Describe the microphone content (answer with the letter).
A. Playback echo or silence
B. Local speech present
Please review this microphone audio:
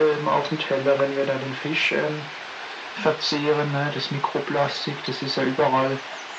A